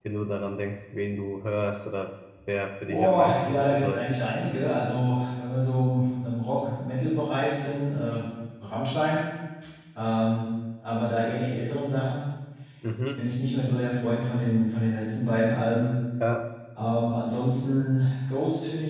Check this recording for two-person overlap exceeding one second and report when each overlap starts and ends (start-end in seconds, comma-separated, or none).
2.8-4.2